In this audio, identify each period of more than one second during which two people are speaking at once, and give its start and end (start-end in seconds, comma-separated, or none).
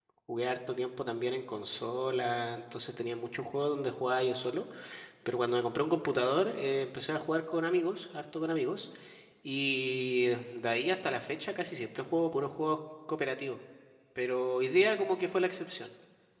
none